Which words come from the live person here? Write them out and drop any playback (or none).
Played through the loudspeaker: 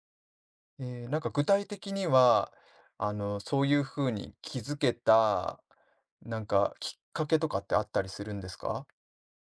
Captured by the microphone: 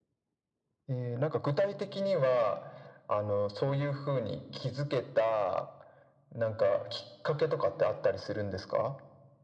none